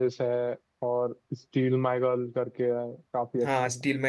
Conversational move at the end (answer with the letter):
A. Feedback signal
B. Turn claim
B